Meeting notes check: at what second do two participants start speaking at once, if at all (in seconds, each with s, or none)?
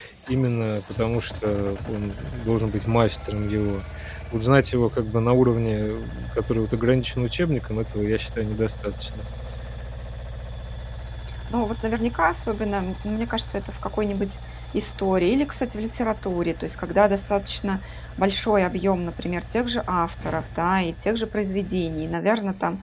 none